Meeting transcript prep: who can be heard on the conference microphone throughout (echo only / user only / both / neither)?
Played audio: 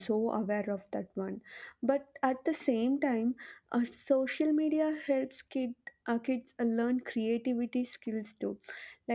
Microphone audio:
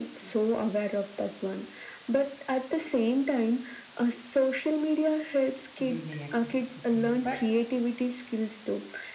both